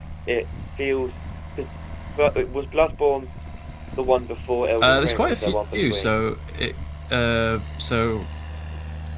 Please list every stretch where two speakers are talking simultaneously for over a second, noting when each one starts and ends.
4.8-6.1

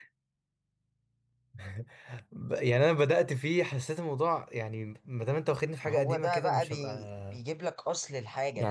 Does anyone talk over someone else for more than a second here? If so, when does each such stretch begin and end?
5.8-7.4

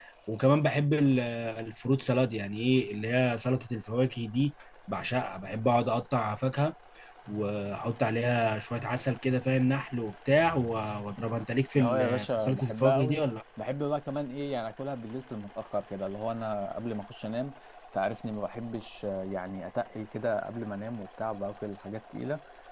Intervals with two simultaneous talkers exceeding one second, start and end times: 11.8-13.2

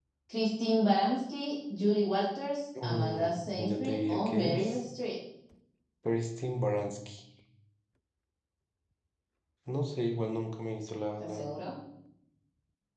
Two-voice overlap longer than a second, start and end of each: 2.8-4.8

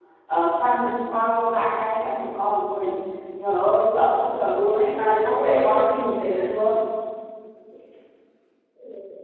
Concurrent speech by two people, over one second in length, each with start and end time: 5.0-6.5

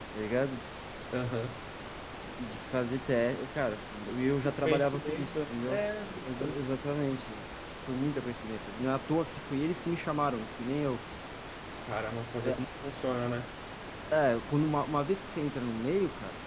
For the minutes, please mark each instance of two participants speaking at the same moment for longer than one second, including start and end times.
4.4-5.8

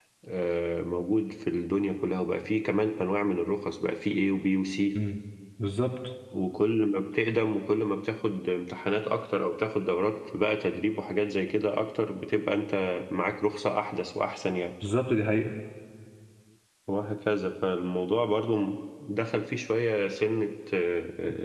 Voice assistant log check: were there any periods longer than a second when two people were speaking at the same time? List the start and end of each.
none

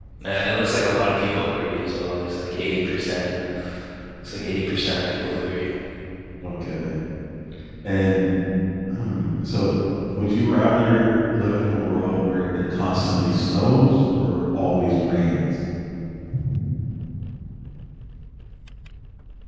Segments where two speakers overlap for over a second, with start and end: none

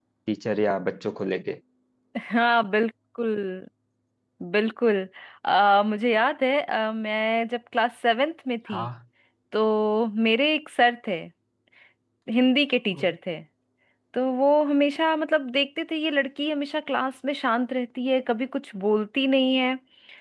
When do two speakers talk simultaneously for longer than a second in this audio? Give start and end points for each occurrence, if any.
none

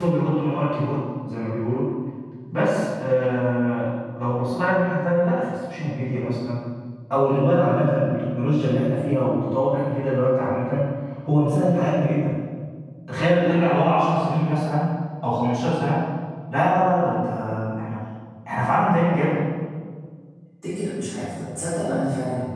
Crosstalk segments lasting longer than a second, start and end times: none

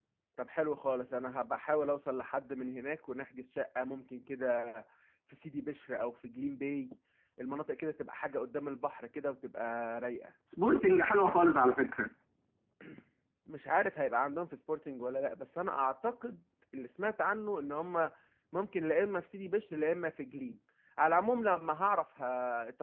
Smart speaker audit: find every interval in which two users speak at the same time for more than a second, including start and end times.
none

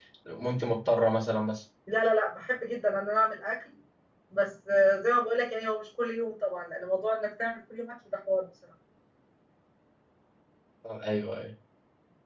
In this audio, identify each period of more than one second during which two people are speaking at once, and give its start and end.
none

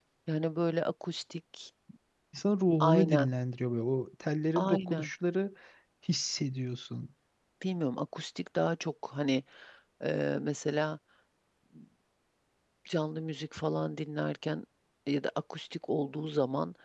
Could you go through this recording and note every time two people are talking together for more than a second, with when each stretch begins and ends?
none

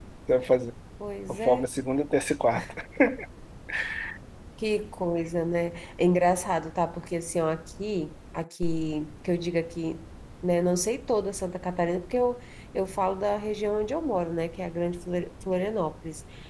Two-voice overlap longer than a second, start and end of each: none

